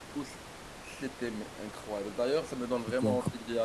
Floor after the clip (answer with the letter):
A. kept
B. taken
A